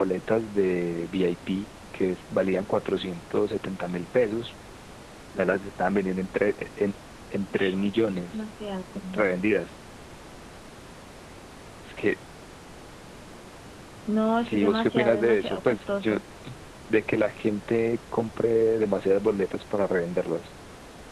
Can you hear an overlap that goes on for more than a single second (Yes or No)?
Yes